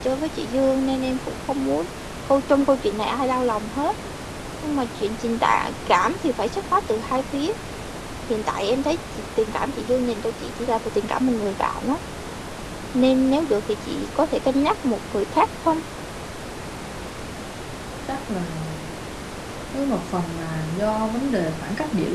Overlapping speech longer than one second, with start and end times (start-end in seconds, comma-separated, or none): none